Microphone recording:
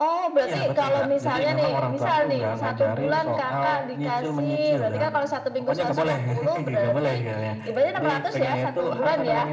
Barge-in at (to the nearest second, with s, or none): none